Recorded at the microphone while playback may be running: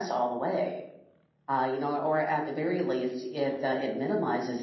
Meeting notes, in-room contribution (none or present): none